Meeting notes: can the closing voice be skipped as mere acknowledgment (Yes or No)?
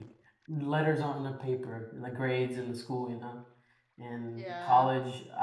Yes